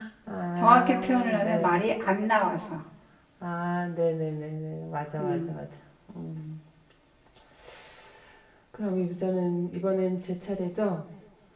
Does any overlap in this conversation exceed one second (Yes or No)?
Yes